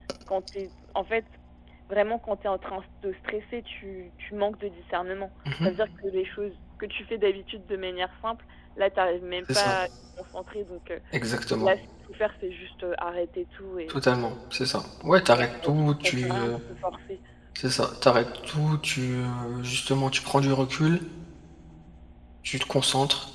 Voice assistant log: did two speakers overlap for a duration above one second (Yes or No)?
Yes